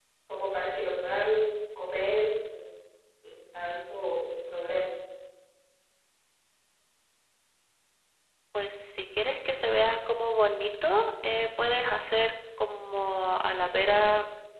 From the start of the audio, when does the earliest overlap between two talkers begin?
none

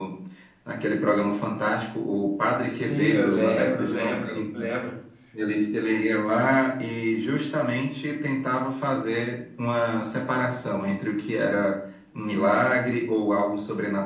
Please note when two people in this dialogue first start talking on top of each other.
2.6 s

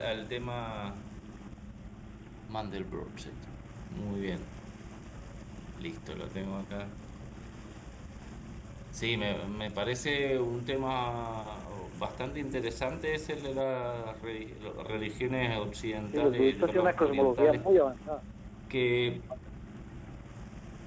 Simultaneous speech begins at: 16.1 s

